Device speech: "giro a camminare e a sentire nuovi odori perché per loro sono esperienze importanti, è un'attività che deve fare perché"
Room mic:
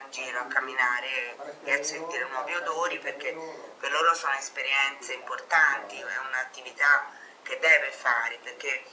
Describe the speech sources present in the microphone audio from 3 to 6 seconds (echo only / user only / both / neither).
both